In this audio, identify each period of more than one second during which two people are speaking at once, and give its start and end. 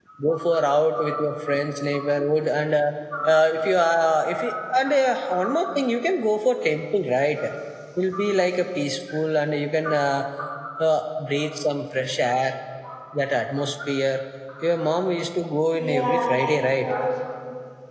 15.7-16.9

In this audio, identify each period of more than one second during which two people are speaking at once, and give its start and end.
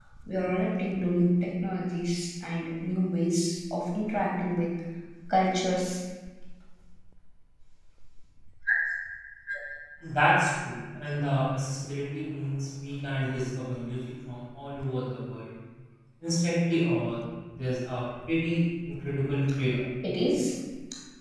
none

